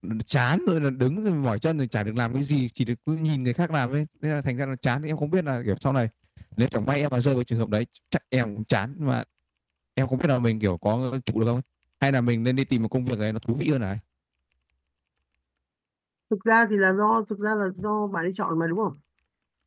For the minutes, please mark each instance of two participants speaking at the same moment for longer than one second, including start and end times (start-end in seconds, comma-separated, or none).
none